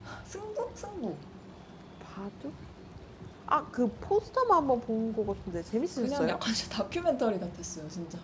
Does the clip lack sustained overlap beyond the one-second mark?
Yes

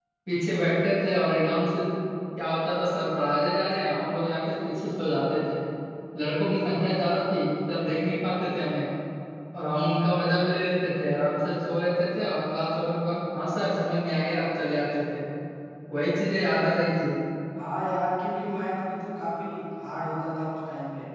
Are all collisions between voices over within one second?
Yes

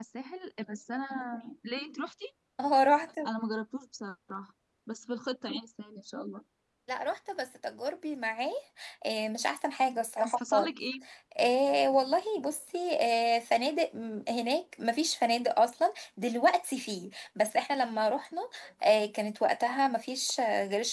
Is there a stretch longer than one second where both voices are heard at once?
No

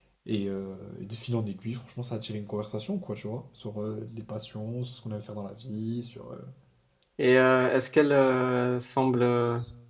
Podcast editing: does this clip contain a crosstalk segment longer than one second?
No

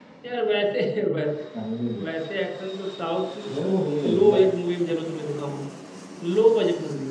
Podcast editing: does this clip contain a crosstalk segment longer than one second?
No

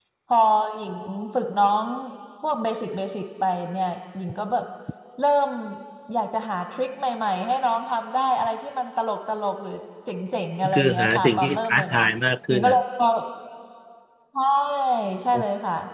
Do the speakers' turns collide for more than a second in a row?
Yes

